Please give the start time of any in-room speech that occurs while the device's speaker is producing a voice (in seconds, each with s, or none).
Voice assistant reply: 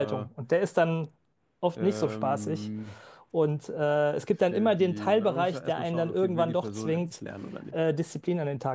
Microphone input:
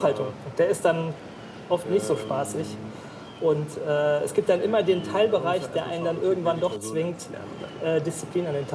none